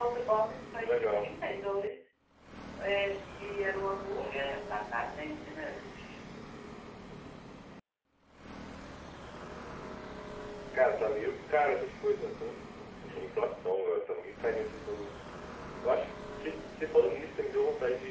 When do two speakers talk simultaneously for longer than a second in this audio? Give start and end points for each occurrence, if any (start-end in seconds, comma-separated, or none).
none